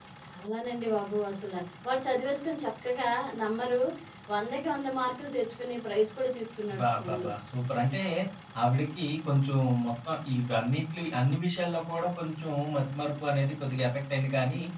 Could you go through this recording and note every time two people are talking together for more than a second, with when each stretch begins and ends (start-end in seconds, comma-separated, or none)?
none